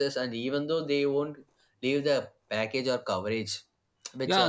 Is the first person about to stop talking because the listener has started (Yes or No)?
Yes